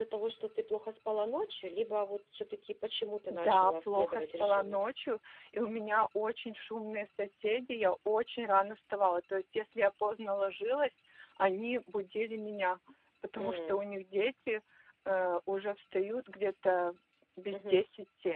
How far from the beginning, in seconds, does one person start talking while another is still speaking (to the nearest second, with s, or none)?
3 s